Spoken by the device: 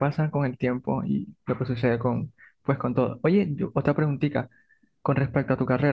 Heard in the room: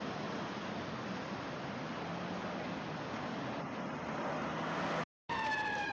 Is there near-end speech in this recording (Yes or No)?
No